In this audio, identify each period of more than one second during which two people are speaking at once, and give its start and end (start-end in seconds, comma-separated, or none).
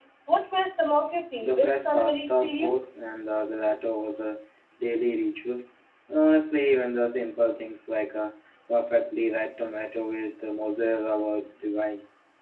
1.4-2.8